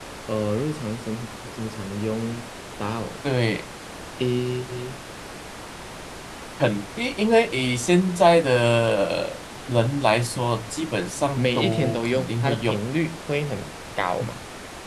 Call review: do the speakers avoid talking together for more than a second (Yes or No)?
No